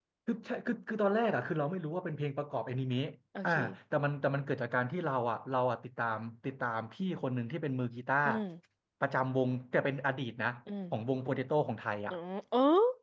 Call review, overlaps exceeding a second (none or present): none